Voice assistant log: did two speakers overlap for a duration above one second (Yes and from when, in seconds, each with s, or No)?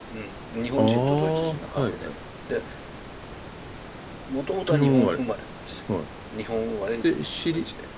Yes, from 0.8 s